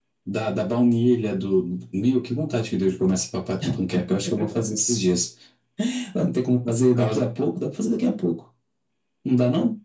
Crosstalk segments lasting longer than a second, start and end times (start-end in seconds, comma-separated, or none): none